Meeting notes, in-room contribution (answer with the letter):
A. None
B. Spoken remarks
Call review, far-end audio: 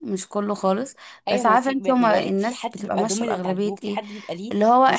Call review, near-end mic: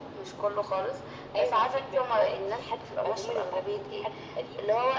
A